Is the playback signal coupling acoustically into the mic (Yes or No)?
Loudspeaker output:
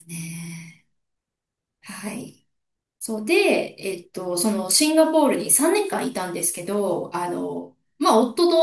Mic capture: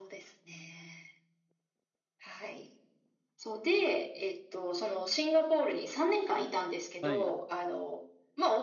Yes